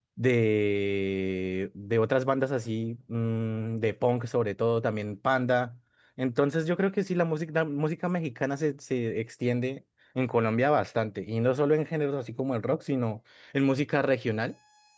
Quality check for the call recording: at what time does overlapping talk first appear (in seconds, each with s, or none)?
none